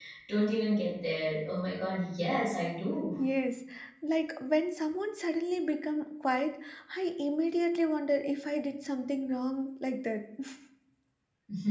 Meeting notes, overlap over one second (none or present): none